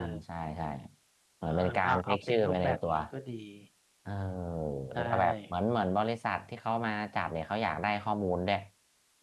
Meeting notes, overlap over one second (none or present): present